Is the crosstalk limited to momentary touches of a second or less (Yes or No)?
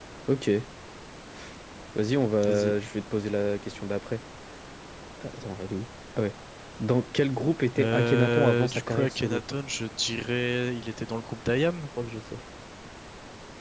No